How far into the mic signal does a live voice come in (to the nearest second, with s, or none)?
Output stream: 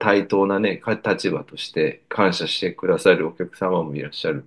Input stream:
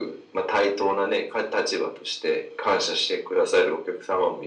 none